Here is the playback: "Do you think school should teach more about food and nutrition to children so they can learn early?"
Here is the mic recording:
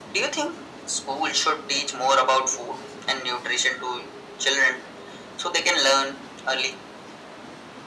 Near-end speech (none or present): none